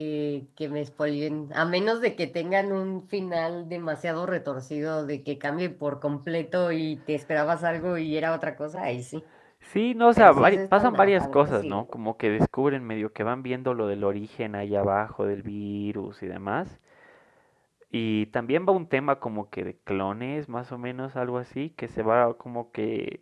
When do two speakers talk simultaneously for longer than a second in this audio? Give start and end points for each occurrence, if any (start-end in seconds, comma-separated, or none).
10.2-11.8